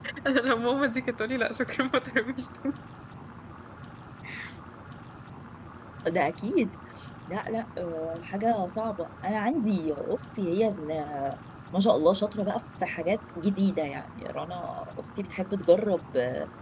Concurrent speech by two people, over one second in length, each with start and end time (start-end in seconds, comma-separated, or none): none